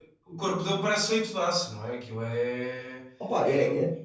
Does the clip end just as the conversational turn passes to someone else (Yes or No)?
Yes